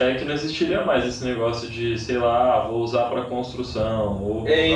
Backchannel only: No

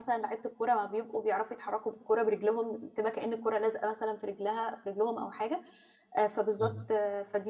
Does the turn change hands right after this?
No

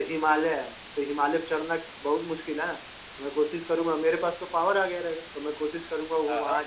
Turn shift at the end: No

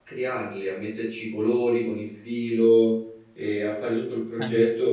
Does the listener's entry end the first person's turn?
No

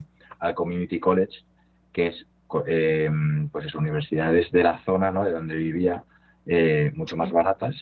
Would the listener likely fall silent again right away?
Yes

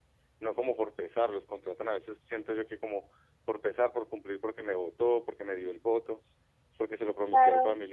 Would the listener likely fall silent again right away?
No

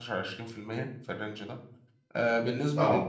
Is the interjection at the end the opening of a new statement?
No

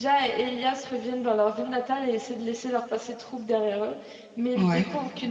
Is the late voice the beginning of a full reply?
No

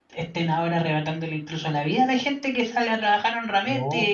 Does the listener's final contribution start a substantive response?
No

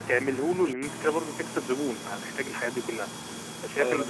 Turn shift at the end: No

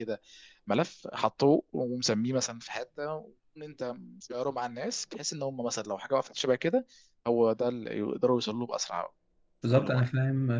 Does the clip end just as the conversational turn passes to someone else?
Yes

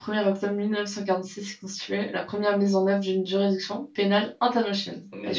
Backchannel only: No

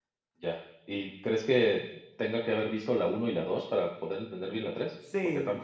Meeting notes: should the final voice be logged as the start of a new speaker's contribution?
Yes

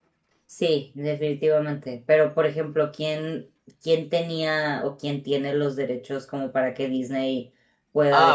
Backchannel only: No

